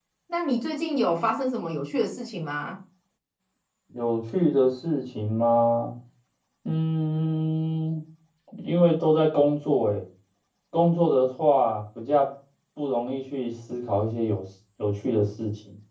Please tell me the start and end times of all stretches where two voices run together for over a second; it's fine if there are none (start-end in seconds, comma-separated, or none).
none